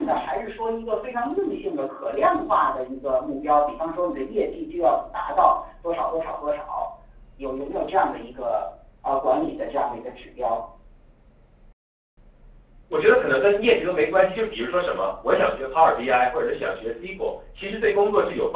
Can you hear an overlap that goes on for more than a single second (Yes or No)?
No